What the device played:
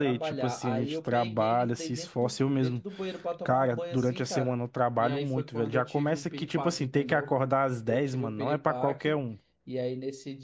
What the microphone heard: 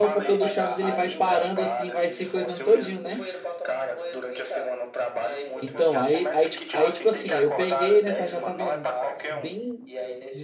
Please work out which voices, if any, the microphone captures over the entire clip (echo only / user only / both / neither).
both